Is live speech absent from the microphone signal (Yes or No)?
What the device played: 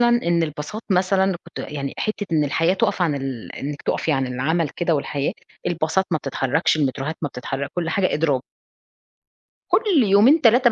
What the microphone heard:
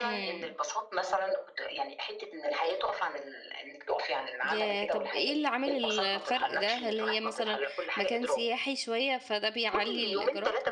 No